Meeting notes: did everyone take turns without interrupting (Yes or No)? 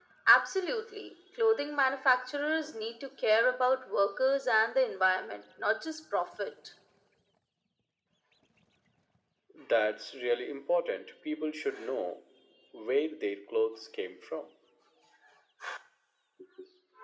Yes